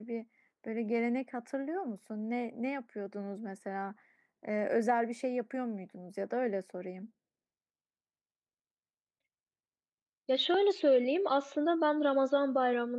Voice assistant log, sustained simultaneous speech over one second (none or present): none